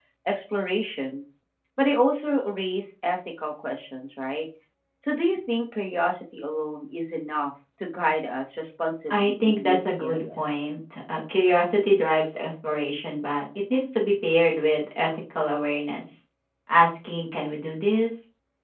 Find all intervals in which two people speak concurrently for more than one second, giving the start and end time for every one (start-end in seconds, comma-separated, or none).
9.1-10.4